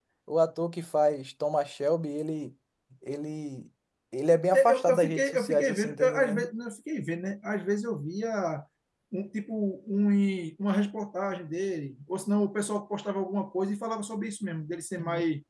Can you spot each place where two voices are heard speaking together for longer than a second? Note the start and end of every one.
4.5-6.5

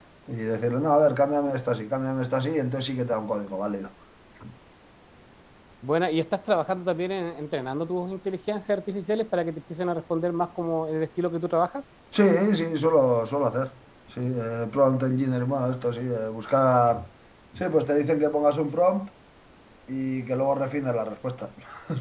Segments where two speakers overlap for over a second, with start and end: none

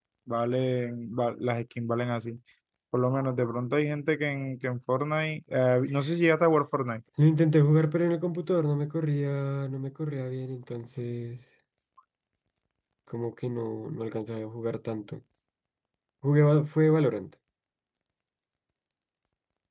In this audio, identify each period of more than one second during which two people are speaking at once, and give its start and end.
none

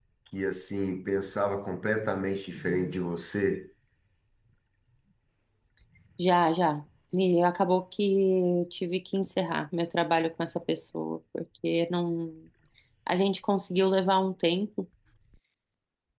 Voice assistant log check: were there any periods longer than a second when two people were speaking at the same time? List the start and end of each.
none

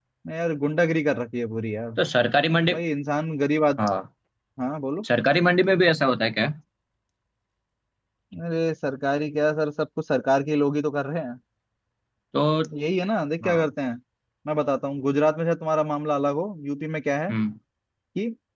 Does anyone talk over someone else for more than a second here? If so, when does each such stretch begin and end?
none

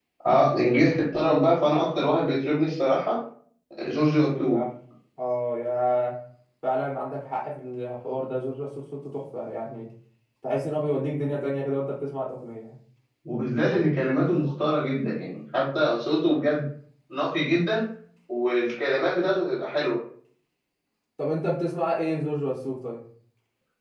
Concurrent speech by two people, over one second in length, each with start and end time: none

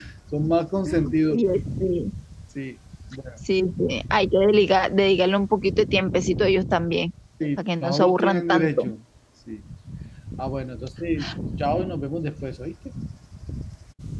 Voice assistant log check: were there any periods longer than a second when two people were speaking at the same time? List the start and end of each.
7.6-8.9

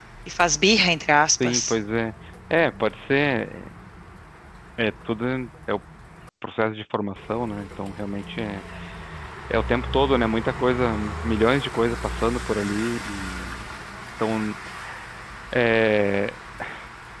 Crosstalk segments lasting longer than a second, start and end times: none

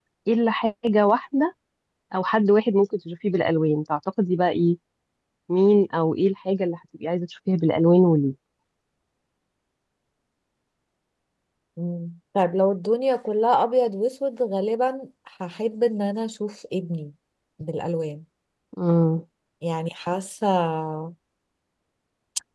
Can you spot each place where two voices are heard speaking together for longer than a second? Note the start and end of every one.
none

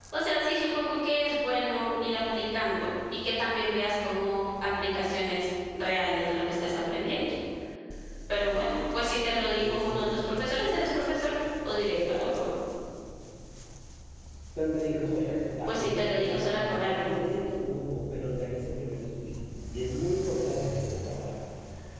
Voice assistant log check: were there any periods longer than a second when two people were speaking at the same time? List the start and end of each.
9.5-10.8, 15.7-17.1

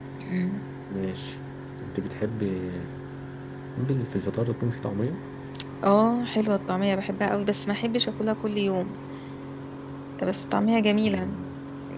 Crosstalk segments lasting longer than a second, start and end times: none

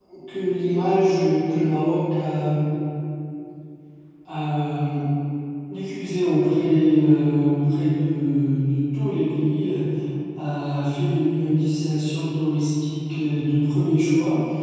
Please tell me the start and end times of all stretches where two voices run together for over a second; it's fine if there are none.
none

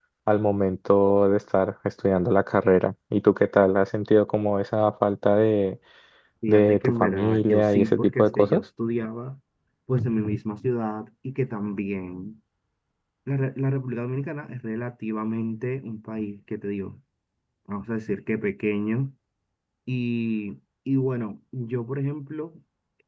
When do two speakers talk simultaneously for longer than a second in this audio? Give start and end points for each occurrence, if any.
6.5-8.6

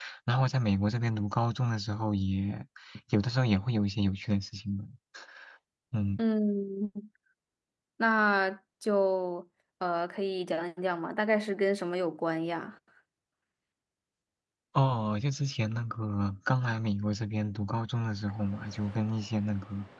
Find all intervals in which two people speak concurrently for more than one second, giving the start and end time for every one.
none

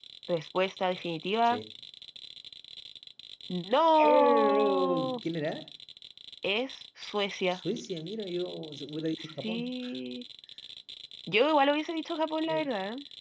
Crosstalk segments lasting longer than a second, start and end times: 4.0-5.2

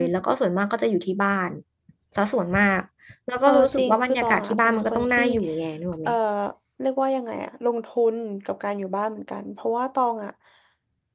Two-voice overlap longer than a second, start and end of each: 3.5-5.2

